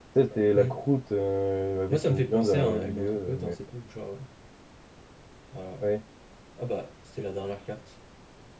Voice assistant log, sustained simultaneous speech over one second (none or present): present